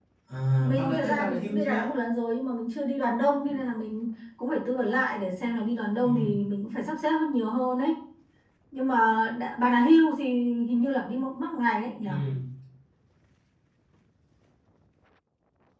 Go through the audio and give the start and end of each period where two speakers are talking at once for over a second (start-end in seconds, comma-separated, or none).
0.6-1.9